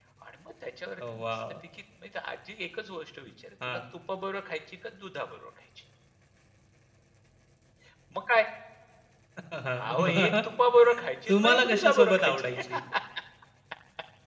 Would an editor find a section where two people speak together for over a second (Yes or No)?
Yes